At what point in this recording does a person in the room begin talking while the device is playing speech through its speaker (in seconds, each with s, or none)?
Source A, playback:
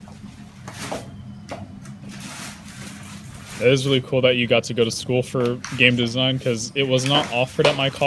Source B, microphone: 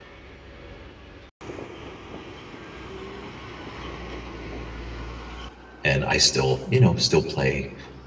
5.8 s